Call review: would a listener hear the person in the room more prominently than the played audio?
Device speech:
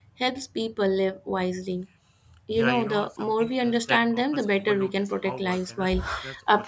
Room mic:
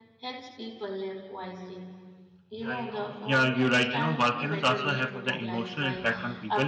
Yes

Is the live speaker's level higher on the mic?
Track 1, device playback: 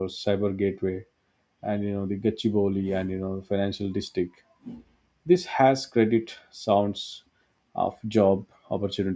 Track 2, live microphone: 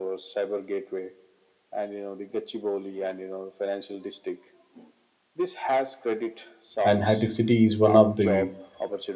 Yes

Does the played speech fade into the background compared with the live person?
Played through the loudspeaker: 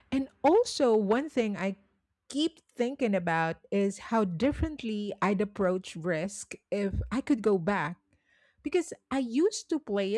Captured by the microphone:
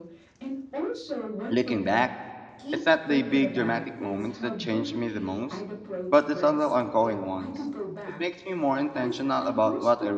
Yes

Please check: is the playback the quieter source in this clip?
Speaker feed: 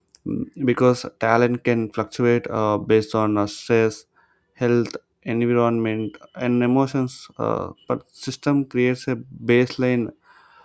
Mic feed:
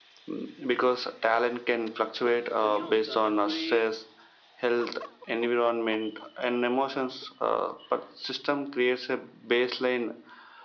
No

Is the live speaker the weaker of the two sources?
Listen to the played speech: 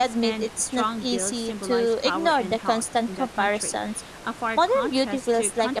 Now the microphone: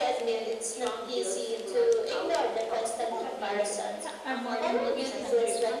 Yes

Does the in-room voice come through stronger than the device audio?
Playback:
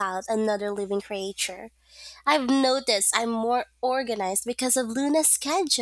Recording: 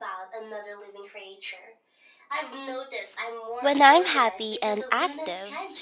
Yes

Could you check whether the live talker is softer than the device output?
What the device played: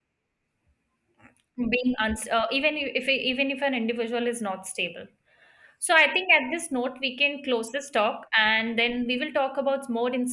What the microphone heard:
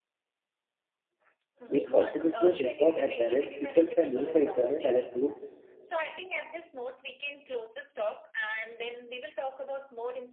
No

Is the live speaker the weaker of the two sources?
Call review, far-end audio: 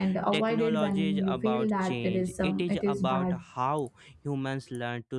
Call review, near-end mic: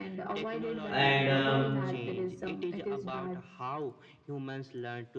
No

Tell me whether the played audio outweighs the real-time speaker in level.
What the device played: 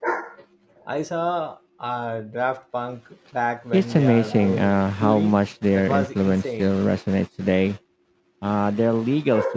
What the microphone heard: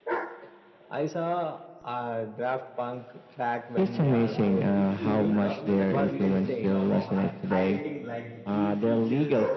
Yes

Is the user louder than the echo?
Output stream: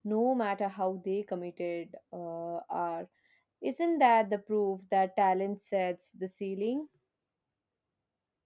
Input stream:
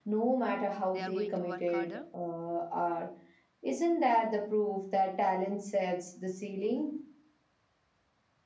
No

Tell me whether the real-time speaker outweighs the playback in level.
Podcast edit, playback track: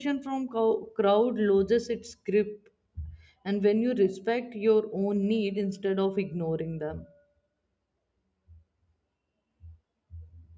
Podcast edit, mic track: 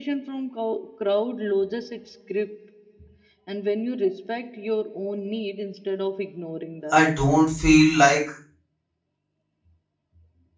Yes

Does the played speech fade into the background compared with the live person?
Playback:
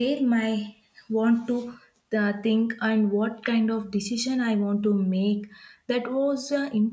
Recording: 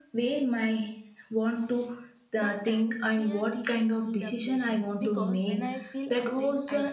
No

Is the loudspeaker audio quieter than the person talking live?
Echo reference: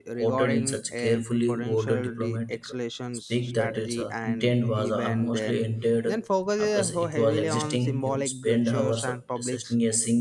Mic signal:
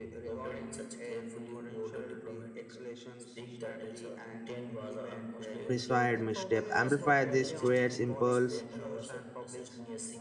Yes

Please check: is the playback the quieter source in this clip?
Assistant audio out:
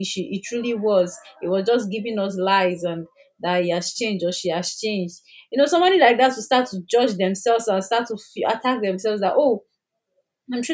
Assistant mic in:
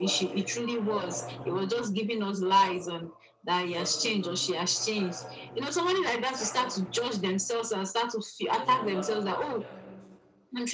No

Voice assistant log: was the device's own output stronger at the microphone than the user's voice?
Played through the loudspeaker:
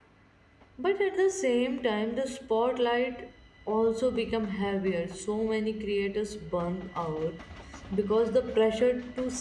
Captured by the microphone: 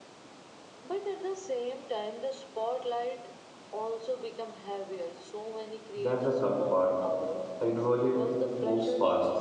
No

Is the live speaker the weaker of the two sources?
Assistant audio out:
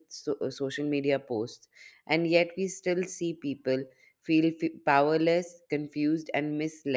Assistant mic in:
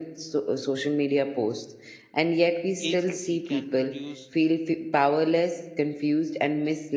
Yes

